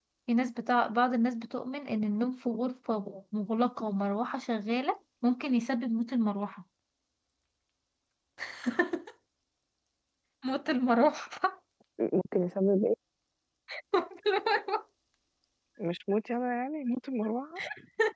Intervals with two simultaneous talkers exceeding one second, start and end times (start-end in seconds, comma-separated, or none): none